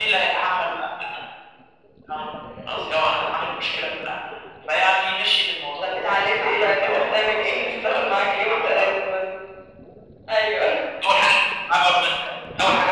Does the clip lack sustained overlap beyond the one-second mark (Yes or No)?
No